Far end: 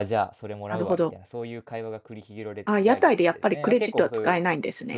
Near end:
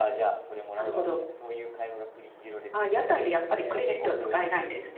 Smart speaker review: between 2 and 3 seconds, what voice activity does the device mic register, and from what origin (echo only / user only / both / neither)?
echo only